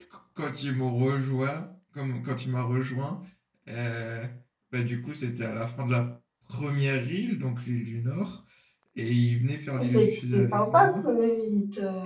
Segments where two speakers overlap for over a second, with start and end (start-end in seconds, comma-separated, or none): 9.8-11.0